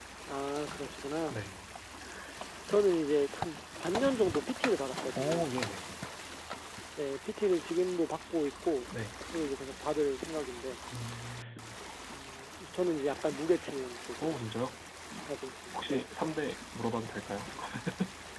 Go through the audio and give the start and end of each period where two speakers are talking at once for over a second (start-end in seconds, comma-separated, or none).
none